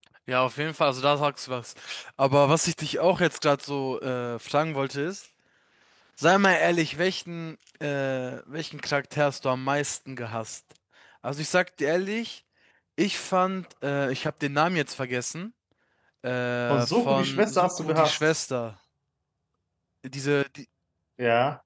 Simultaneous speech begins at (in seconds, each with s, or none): 16.7 s